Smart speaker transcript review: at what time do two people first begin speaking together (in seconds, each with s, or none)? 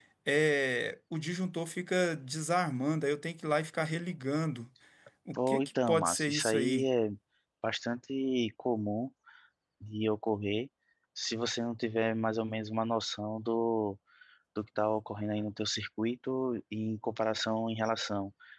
5.4 s